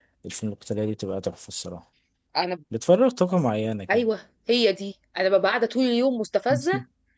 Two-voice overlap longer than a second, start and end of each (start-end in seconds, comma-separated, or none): none